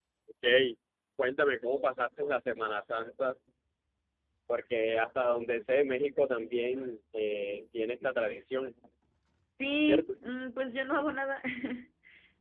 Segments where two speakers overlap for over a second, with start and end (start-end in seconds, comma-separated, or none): none